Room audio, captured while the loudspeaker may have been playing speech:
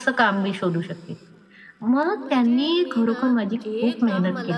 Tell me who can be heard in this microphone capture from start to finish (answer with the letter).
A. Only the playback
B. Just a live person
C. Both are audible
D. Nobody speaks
C